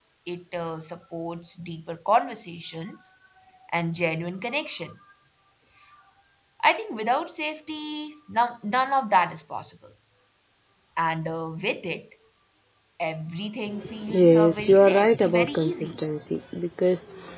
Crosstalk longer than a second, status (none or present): present